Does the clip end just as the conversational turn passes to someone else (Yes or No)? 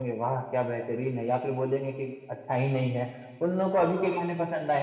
No